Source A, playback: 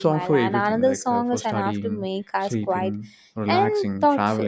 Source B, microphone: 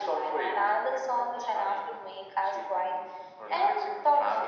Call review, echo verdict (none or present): present